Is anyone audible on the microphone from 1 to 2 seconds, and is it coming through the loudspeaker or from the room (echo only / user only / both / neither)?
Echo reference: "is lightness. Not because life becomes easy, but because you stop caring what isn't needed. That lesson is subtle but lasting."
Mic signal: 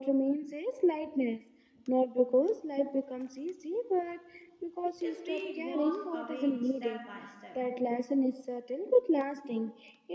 echo only